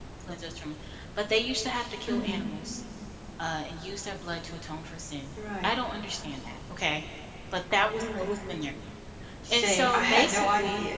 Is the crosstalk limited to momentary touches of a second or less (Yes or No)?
No